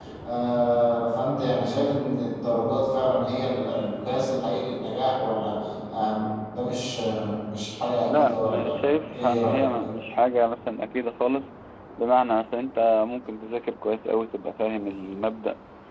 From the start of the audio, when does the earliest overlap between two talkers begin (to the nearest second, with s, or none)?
8 s